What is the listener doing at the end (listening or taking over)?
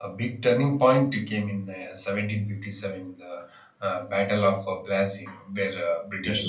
listening